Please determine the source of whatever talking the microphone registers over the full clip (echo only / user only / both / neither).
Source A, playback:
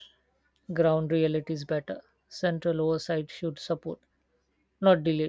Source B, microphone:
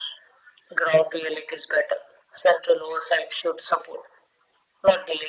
echo only